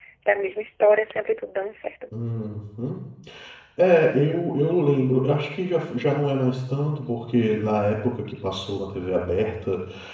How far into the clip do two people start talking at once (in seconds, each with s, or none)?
none